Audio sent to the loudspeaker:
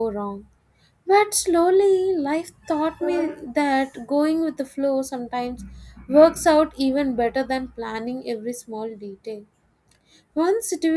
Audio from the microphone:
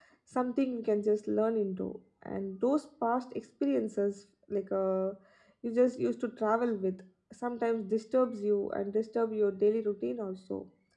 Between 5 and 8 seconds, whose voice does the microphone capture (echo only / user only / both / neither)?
user only